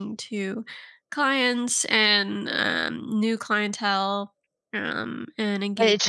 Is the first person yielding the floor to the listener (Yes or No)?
Yes